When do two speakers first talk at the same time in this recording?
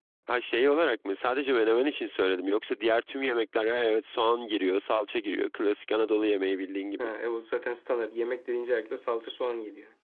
none

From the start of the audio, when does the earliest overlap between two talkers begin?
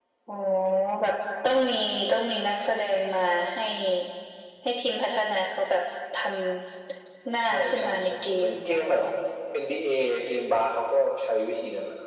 7.5 s

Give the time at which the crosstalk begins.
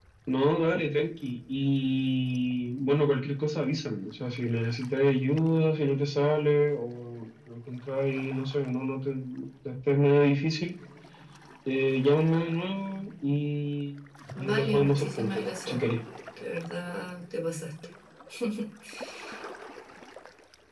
14.4 s

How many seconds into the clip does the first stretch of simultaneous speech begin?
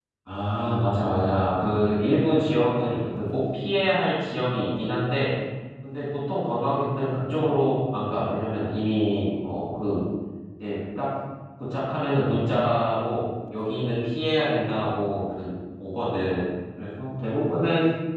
none

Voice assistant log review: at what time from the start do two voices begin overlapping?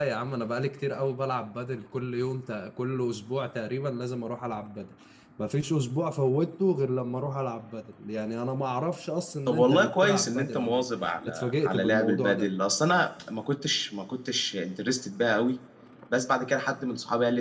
9.5 s

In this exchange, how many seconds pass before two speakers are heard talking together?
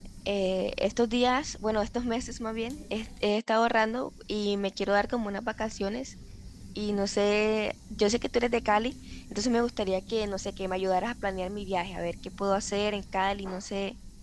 none

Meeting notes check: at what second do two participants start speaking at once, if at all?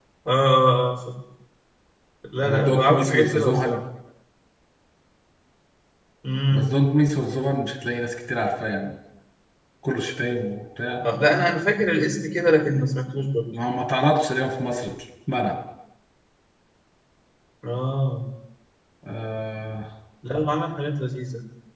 2.5 s

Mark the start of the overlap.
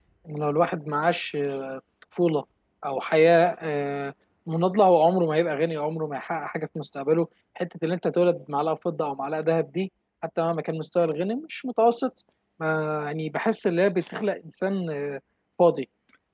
none

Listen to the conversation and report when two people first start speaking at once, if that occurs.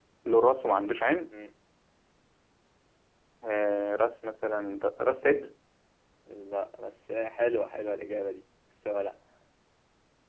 none

